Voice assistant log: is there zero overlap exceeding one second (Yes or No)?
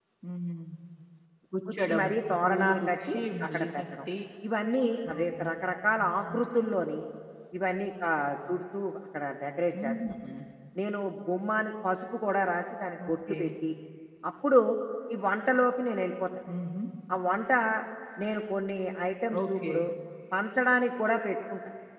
No